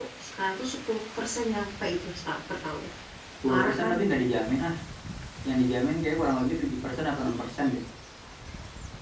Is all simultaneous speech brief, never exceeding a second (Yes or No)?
Yes